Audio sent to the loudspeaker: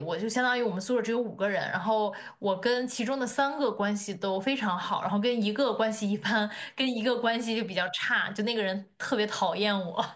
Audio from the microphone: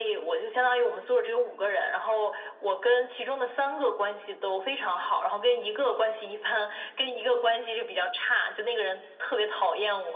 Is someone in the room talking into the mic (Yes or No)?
No